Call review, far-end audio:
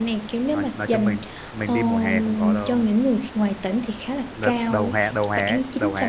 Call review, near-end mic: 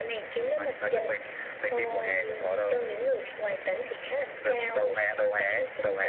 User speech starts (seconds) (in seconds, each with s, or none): none